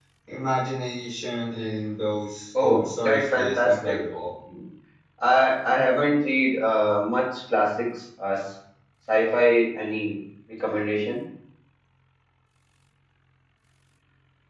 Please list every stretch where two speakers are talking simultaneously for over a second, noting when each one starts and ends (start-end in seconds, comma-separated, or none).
2.6-4.0